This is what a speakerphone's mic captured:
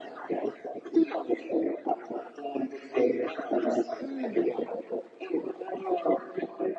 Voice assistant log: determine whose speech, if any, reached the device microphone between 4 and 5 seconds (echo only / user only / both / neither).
both